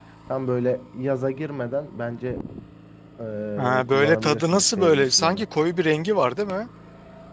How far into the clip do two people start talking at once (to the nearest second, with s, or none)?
4 s